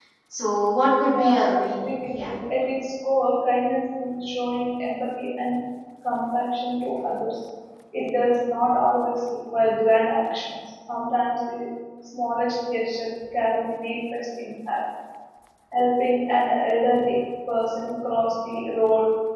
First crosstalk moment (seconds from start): 1.1 s

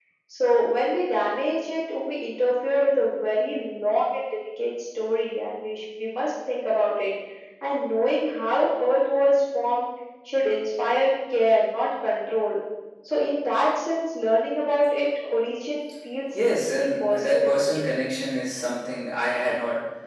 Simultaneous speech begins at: 16.3 s

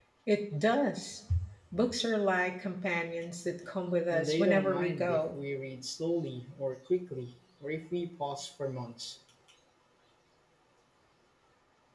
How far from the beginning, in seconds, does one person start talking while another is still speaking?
4.1 s

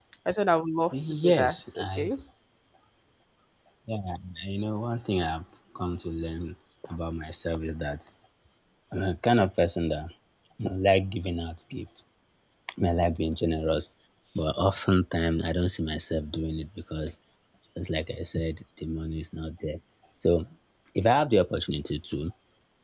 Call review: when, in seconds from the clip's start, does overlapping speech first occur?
0.9 s

